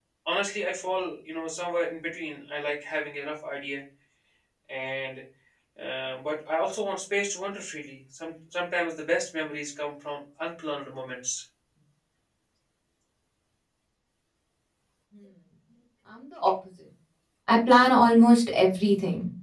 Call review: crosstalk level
none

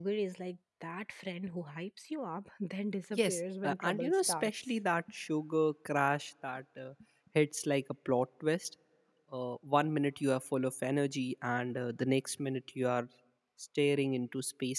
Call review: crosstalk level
present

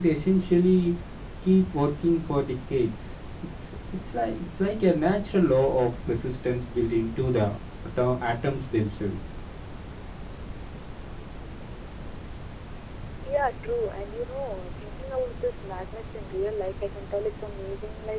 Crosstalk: none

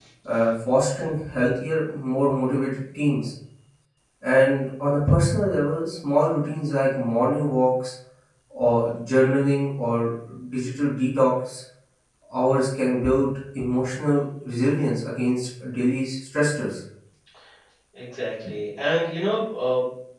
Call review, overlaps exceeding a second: none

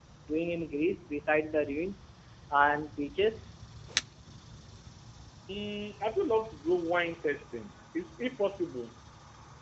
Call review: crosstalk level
none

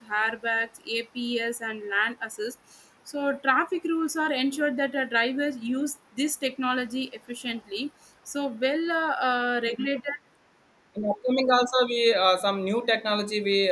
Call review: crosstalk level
none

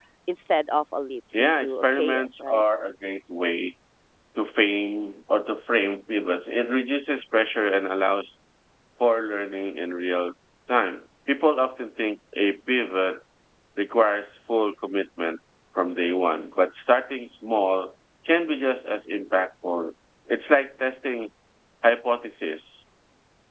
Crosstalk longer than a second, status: present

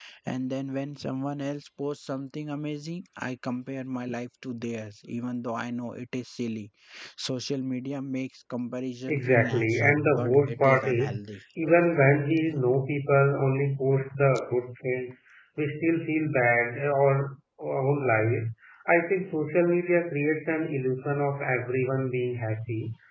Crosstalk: present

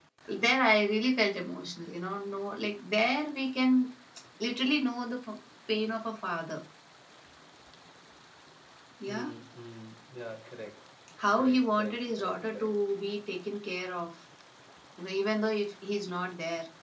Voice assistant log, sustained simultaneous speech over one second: present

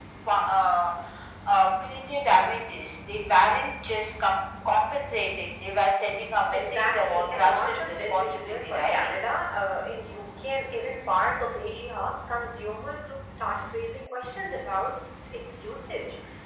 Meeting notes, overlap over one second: present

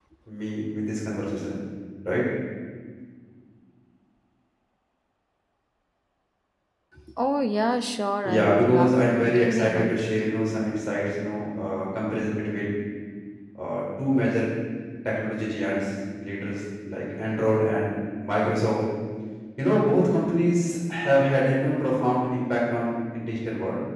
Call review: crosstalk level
present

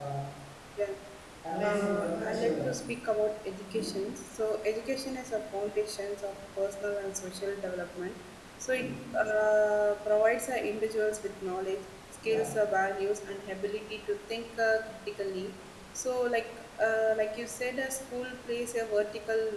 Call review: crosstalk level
present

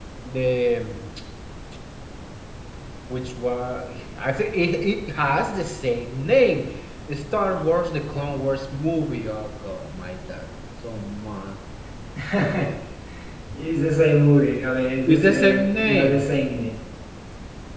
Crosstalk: present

